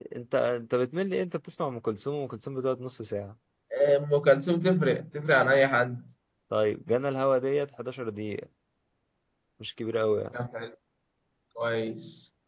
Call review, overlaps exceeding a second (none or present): none